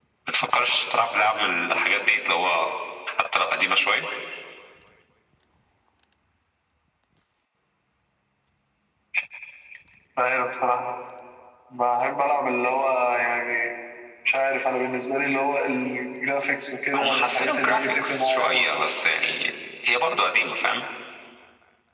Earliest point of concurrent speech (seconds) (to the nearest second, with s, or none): 17 s